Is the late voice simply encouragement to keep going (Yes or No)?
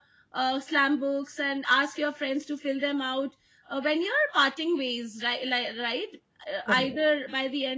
Yes